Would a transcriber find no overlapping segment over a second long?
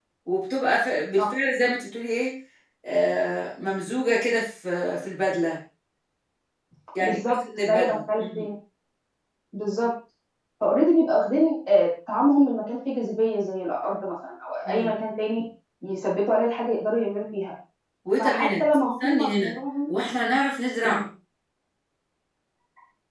No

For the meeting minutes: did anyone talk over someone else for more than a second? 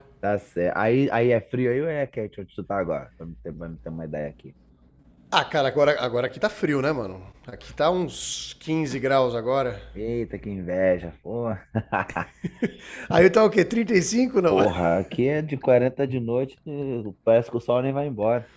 No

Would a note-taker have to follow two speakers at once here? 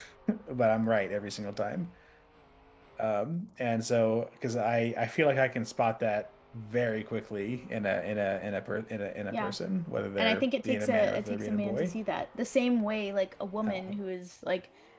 Yes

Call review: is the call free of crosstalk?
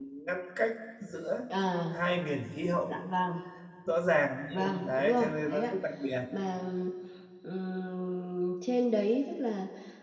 No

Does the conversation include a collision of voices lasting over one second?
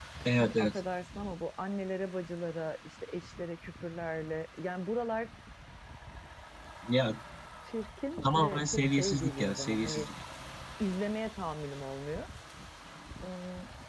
Yes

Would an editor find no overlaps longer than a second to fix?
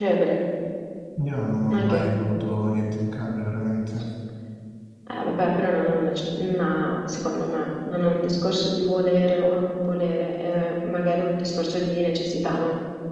Yes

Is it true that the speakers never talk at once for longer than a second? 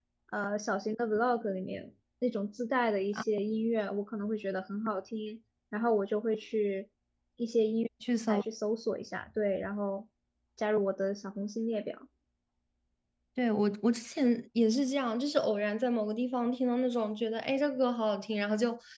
Yes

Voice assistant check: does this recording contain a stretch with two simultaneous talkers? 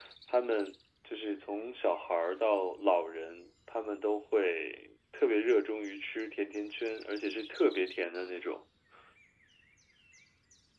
No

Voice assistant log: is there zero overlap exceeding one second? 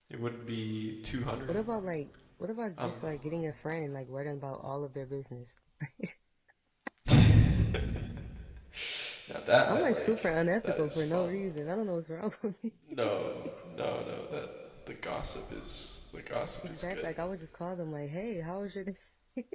No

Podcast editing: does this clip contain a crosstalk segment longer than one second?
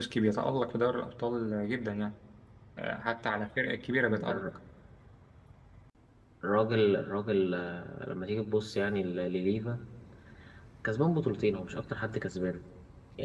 No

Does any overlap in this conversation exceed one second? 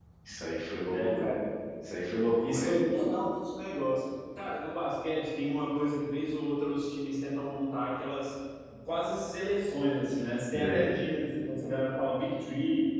No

